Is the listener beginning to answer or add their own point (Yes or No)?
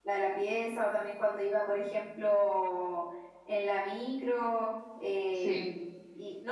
No